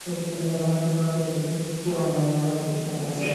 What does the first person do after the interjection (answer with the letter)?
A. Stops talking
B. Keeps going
B